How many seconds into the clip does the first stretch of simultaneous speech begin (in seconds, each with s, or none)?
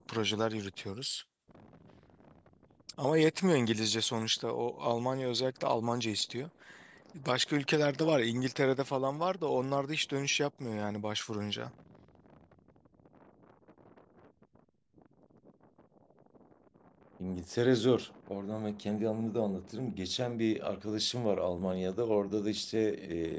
none